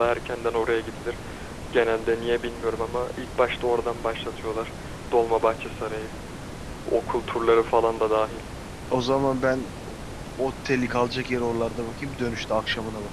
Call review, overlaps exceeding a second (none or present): none